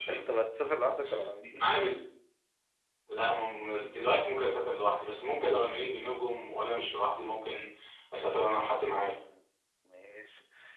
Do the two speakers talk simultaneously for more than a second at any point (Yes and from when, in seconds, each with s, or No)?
No